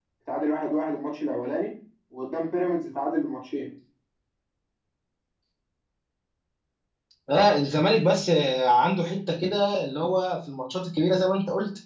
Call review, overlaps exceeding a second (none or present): none